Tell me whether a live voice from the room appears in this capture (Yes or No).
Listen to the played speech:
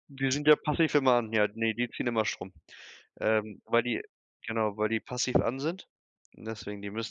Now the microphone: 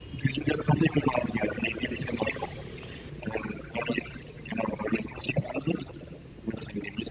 No